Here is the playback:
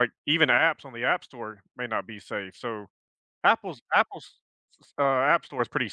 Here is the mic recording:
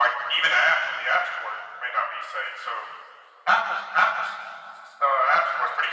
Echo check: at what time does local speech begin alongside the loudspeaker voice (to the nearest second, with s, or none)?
none